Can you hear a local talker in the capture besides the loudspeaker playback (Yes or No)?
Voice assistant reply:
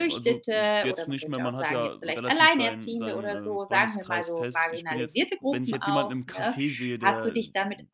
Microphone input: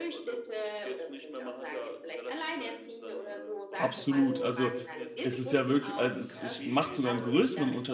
Yes